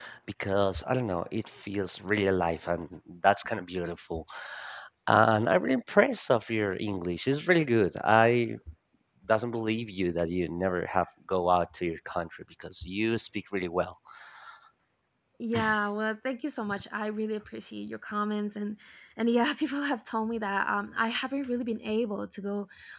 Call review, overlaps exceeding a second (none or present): none